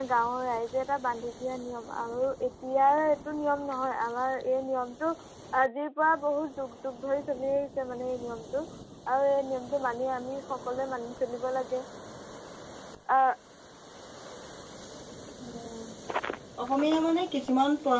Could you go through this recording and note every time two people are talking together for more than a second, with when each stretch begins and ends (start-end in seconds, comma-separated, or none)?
none